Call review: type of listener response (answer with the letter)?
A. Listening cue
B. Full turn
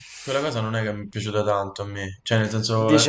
B